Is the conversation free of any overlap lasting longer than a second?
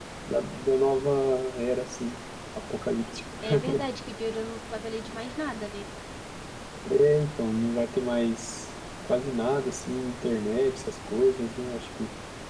Yes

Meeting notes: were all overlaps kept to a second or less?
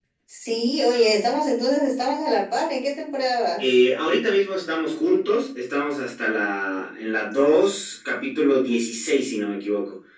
Yes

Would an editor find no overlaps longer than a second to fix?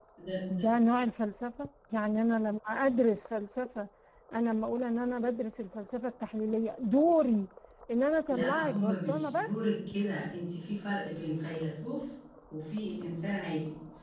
No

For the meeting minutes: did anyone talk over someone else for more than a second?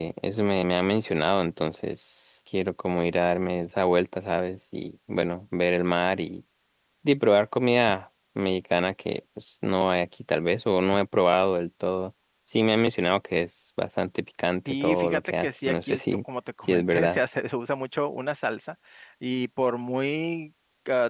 Yes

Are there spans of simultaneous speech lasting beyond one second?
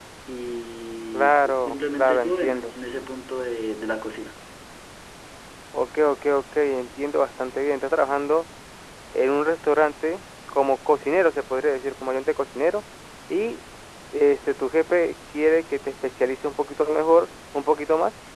Yes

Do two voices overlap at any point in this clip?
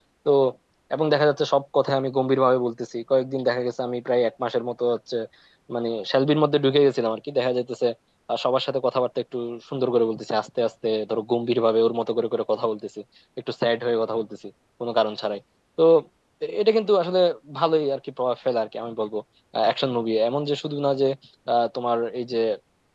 No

